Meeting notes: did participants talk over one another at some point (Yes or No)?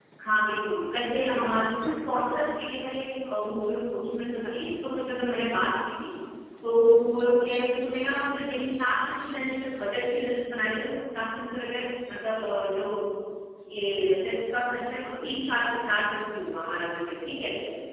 No